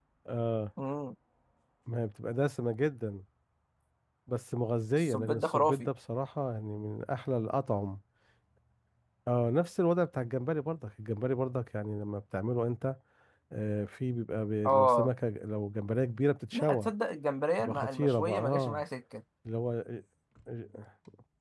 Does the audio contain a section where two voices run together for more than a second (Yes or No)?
Yes